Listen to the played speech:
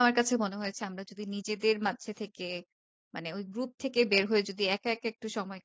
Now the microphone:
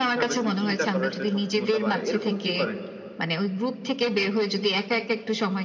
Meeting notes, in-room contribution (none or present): present